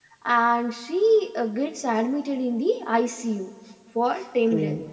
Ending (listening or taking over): listening